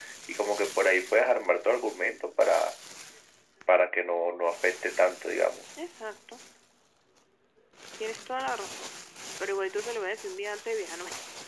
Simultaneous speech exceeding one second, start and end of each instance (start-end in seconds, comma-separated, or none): none